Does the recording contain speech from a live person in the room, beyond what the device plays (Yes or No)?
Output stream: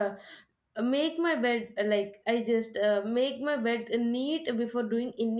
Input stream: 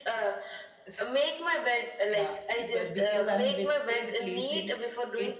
Yes